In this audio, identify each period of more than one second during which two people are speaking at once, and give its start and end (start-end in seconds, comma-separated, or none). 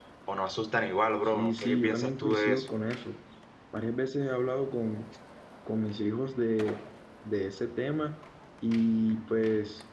1.3-2.7